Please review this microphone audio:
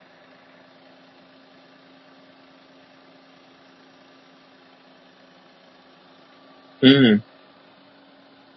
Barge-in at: 6.8 s

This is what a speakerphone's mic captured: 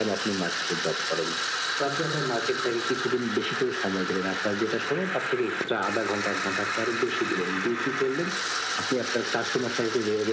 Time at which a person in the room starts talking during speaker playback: none

